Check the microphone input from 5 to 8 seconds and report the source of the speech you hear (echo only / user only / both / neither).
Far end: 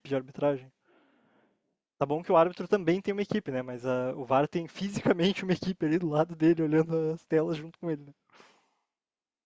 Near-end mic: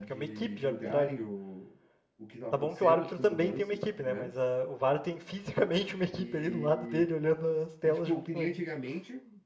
both